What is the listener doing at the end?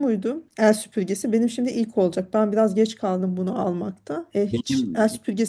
listening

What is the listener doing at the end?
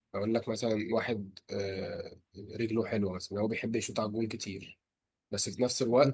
listening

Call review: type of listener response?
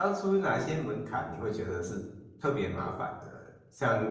listening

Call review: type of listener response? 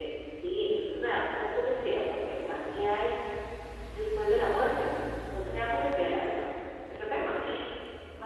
taking over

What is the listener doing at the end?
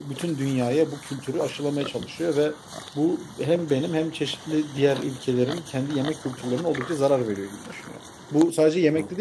listening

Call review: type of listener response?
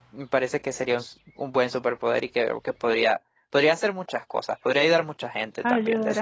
taking over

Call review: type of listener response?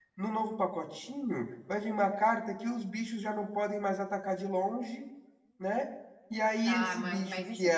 taking over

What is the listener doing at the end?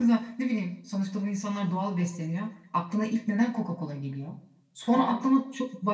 listening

